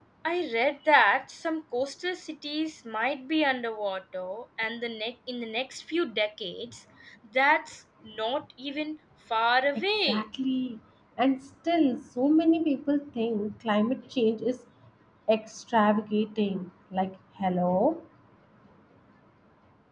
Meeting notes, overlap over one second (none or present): none